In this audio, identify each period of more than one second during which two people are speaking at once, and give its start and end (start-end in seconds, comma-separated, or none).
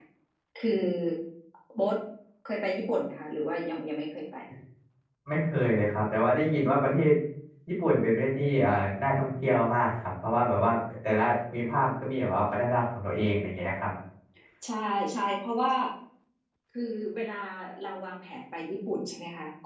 none